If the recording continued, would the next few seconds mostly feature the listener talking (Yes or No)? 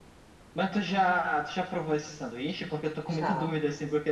No